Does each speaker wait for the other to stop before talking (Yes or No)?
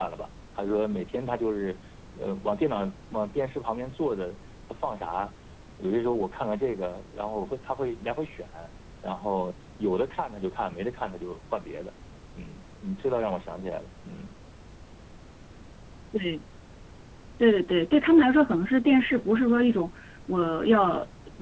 Yes